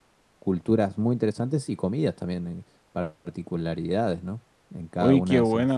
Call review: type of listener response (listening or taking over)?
taking over